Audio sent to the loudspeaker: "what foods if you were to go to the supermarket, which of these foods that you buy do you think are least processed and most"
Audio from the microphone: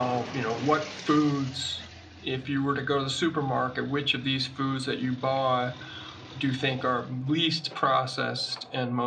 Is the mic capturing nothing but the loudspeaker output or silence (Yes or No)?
Yes